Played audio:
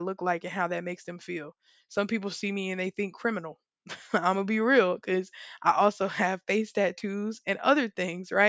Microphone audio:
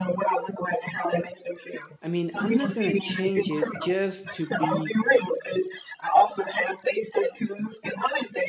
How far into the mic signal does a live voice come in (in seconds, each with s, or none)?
2.0 s